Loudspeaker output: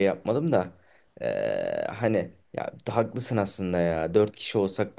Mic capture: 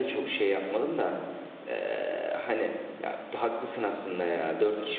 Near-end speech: none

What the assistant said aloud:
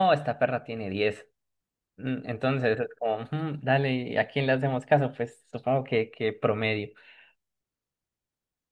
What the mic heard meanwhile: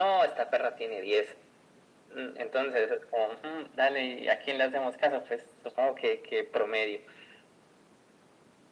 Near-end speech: none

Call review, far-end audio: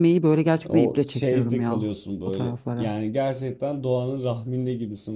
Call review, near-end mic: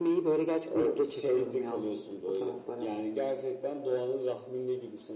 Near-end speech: none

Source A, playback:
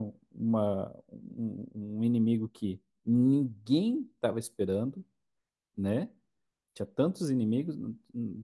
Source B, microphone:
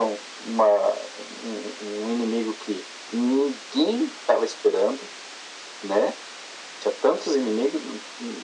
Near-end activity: none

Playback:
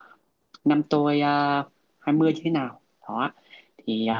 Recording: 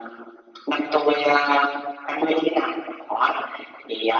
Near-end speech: none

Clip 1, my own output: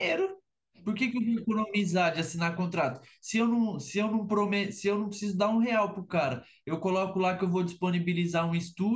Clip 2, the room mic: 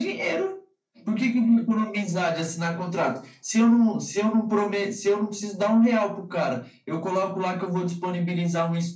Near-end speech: none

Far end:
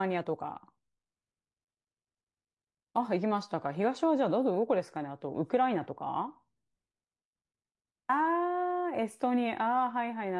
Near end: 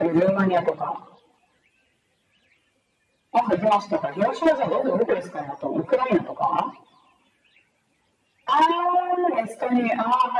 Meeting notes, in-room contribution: none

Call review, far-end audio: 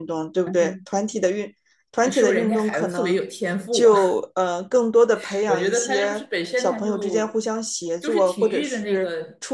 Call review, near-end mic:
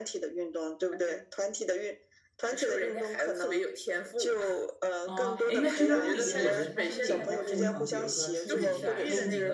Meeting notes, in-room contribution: present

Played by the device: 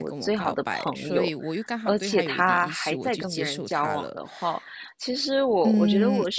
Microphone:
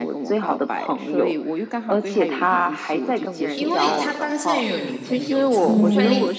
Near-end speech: present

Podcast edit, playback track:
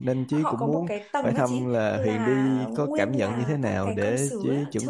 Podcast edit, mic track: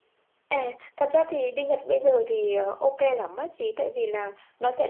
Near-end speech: present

